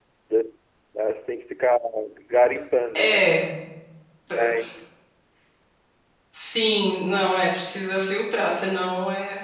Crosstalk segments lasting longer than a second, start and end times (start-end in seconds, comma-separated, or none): none